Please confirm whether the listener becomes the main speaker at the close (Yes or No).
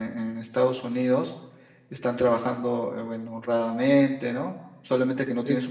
No